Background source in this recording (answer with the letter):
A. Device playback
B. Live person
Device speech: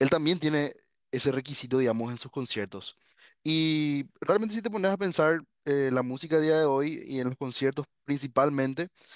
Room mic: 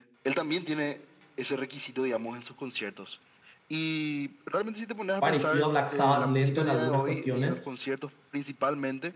A